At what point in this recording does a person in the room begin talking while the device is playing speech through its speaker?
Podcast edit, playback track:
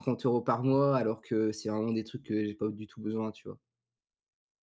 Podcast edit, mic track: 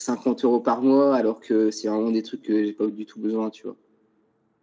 none

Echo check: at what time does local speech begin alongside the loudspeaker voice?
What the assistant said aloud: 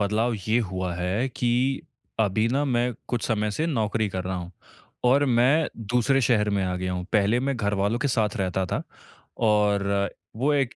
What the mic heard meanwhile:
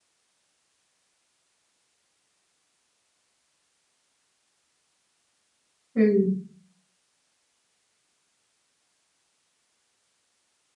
6.0 s

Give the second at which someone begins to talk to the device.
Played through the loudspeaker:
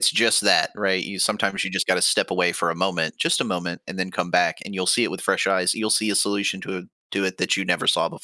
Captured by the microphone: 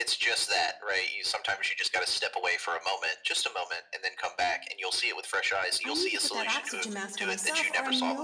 5.8 s

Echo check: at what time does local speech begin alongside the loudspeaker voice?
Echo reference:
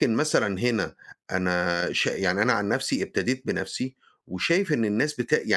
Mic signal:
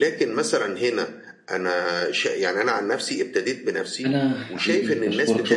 4.1 s

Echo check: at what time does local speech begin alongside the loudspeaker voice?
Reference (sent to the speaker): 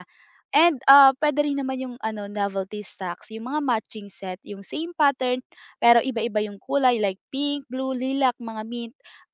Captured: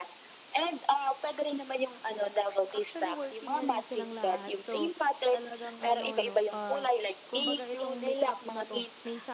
2.7 s

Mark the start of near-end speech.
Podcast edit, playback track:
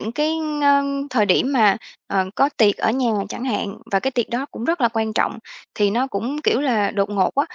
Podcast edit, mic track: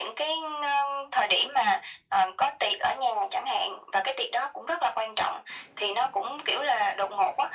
none

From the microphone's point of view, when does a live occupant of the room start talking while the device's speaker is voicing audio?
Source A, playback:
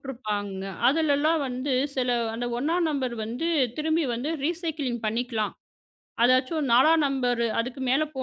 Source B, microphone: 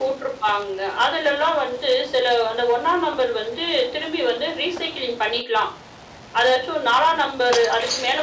none

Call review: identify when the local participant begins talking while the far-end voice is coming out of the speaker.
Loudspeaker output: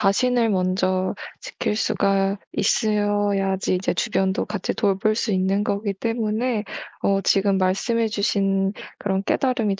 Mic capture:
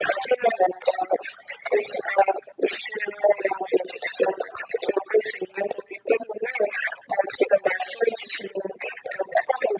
none

